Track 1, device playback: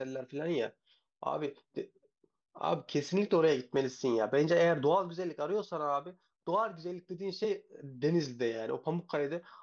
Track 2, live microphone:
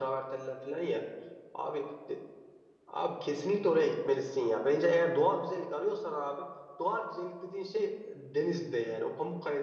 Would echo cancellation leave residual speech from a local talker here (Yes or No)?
No